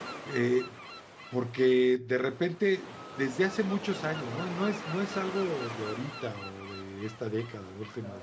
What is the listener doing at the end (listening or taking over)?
listening